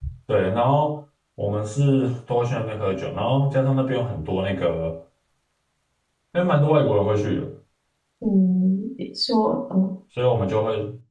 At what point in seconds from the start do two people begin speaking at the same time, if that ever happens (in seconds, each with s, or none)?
none